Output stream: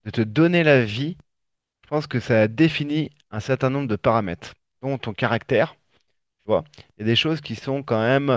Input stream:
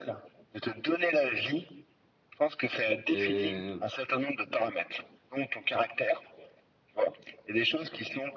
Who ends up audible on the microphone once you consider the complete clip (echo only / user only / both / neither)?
both